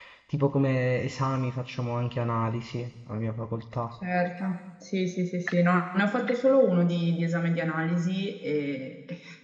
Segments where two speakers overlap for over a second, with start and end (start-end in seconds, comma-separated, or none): none